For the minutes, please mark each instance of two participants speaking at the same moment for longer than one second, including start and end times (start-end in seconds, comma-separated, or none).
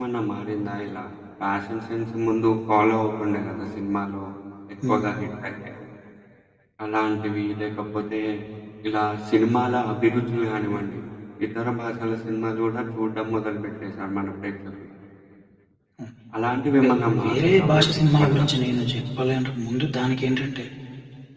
16.8-18.4